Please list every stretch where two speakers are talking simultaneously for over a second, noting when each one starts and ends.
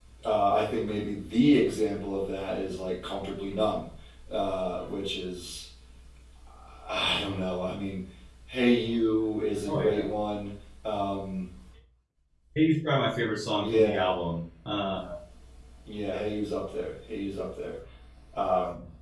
none

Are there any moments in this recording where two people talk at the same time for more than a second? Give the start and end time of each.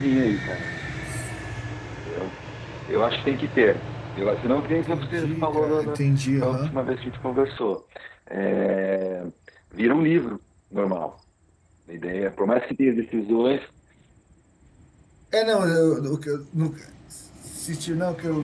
4.7-6.0

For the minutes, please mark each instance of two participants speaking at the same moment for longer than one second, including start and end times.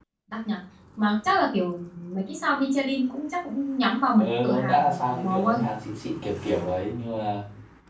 4.2-5.6

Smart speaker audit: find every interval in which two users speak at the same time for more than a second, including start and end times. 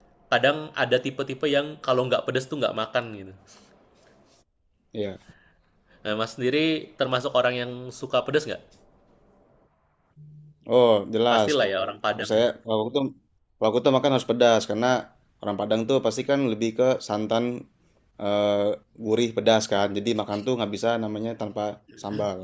none

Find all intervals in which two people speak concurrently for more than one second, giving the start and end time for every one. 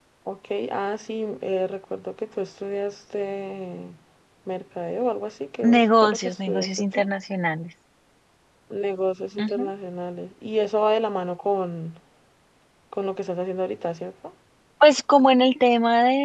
5.6-7.0

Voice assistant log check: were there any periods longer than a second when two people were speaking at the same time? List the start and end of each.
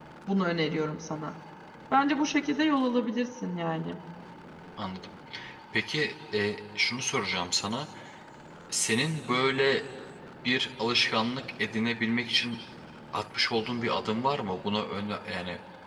none

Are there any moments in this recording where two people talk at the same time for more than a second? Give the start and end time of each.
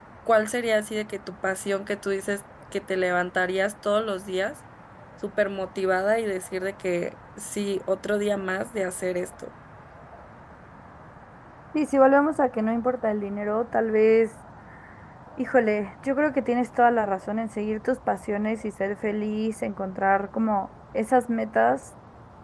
none

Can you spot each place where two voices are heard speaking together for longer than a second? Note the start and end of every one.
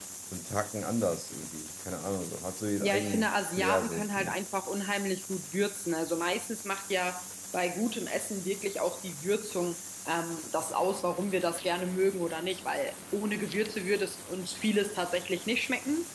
2.8-4.4

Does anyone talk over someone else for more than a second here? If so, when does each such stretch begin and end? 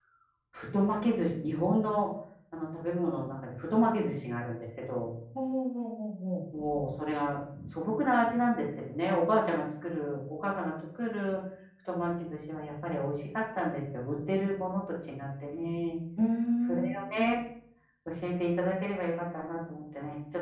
none

